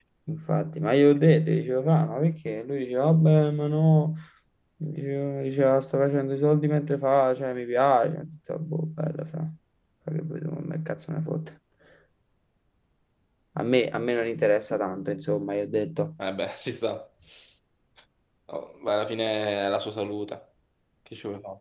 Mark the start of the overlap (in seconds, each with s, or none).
none